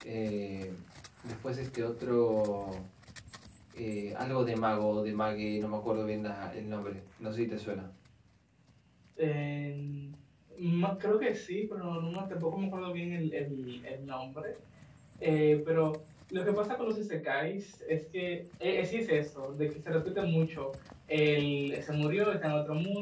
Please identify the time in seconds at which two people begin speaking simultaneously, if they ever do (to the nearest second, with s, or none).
none